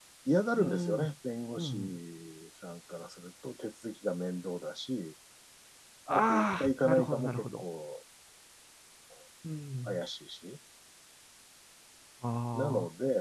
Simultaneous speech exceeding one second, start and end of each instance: 6.1-7.6

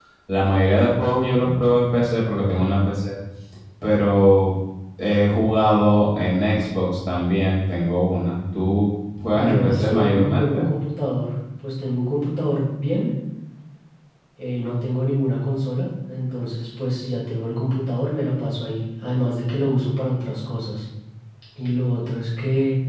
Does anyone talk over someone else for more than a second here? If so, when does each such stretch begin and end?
9.3-10.7

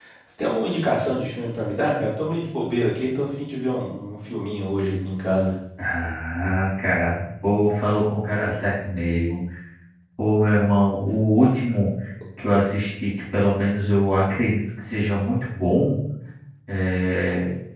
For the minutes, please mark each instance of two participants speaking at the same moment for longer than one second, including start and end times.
none

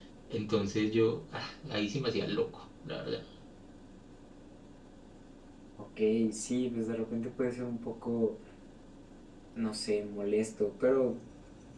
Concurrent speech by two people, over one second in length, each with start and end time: none

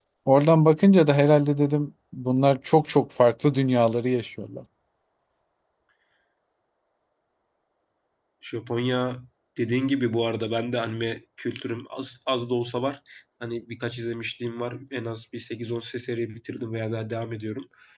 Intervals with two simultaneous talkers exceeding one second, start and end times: none

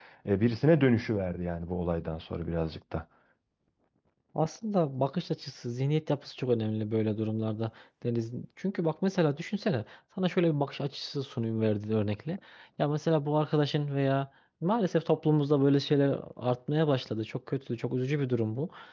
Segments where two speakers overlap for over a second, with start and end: none

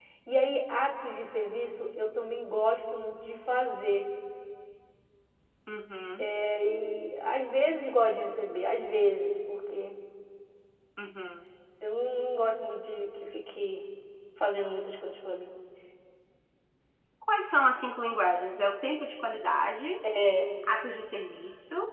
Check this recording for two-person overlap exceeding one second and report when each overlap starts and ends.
none

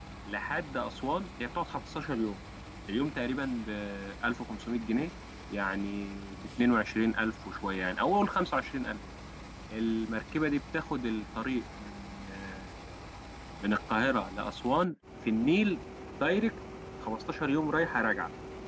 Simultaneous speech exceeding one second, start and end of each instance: none

